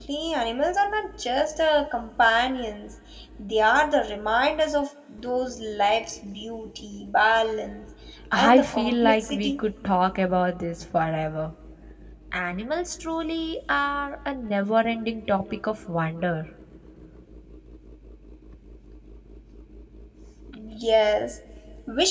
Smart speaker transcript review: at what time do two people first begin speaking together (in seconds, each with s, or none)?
8.3 s